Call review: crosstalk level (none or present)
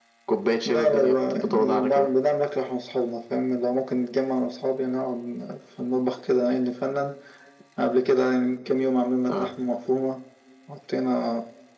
present